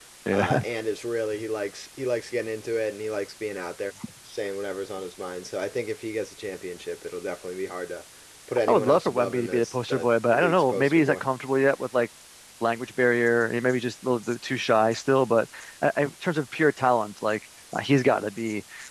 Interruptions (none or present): present